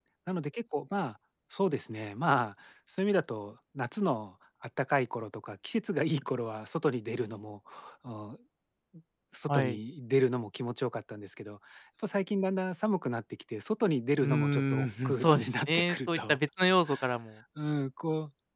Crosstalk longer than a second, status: present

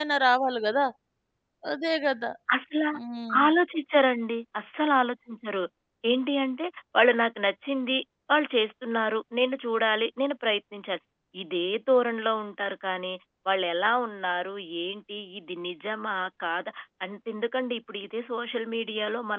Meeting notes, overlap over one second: none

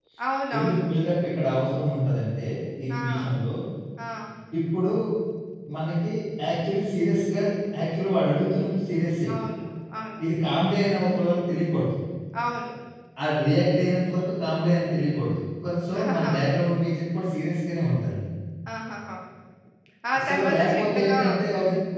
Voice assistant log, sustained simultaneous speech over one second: present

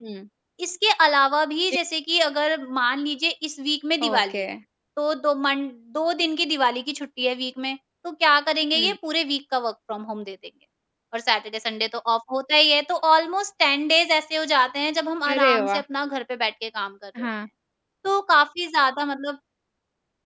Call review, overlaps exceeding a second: none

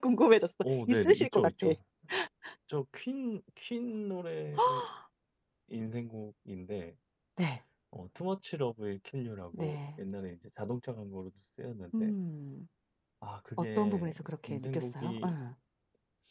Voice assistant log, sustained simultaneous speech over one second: present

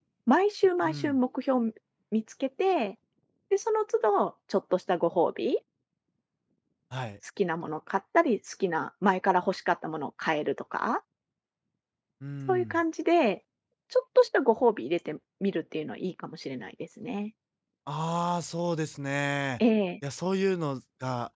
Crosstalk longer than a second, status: none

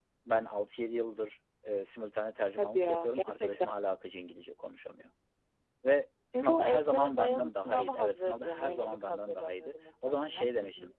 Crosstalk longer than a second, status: present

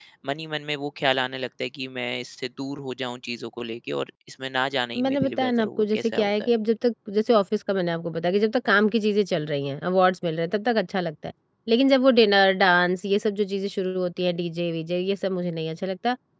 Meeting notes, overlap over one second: present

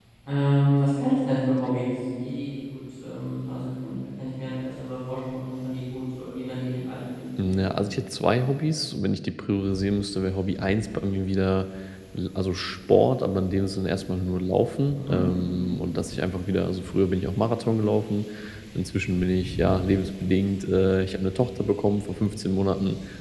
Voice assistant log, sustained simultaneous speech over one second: none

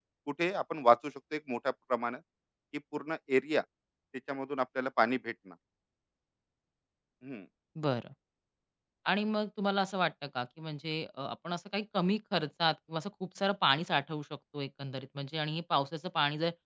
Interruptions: none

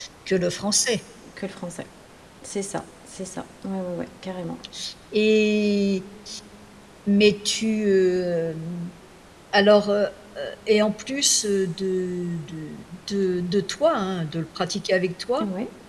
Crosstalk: none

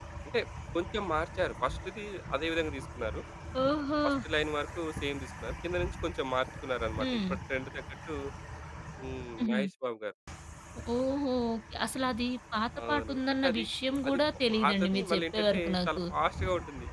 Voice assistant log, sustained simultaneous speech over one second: present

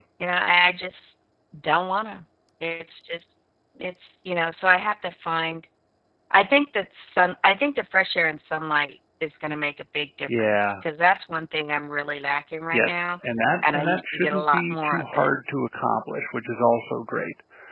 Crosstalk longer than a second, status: present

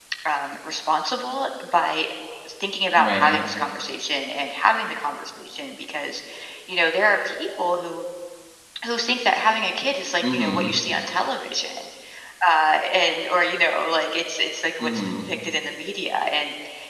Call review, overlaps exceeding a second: none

